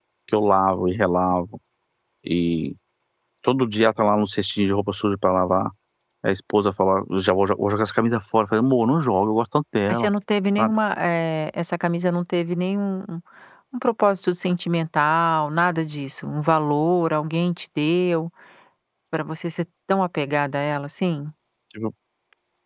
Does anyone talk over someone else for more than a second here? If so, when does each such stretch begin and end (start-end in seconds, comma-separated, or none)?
none